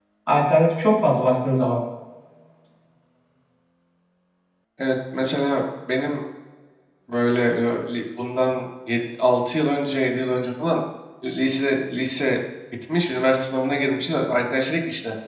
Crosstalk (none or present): none